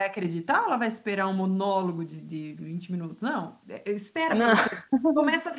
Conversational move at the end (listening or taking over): listening